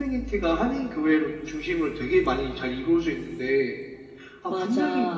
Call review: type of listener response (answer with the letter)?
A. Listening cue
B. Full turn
A